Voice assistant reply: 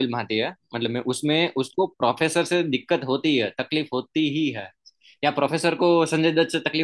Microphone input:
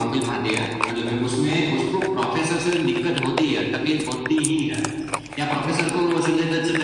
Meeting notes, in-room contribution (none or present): none